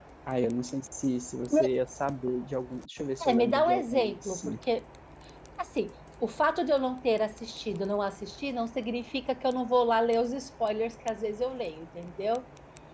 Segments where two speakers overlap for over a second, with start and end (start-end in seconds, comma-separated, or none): 3.2-4.6